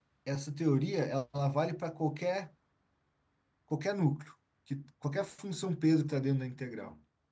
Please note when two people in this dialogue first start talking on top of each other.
none

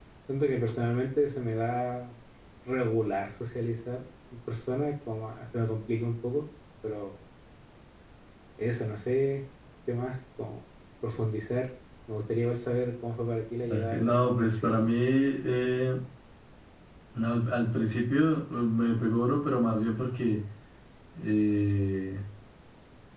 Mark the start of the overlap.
13.6 s

